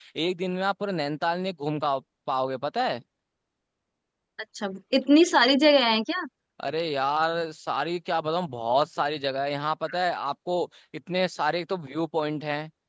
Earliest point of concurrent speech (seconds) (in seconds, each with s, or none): none